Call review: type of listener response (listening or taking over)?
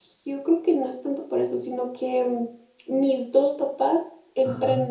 taking over